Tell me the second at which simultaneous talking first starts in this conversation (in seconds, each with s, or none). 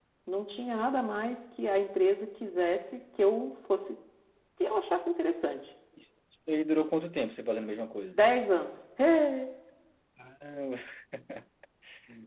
none